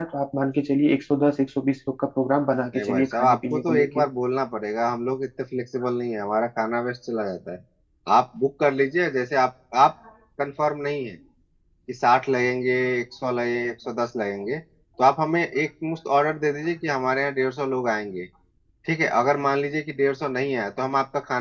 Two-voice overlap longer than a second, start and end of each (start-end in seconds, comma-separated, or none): 2.7-4.0